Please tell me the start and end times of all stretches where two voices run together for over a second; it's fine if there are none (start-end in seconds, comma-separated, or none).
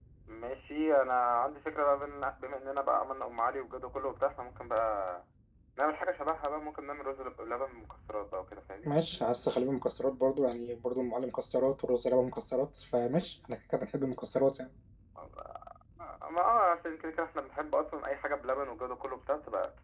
none